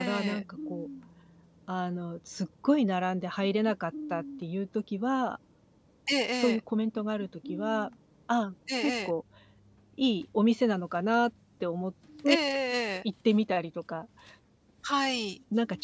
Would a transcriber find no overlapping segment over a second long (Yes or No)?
Yes